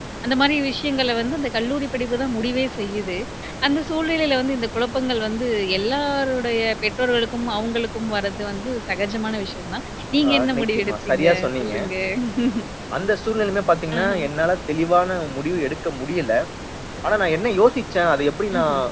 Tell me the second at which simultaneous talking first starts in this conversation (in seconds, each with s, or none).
10.3 s